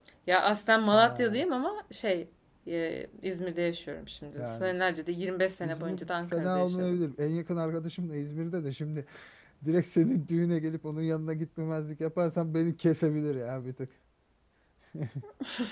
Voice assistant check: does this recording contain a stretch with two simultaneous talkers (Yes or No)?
Yes